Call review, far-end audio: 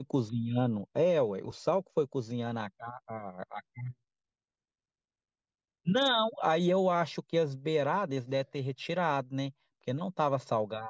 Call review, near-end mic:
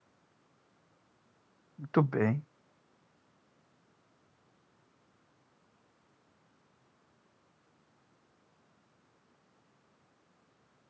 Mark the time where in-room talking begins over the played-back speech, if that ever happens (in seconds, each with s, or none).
1.8 s